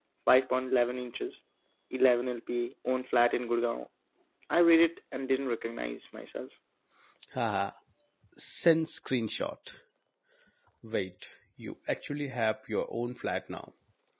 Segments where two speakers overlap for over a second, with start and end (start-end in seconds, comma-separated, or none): none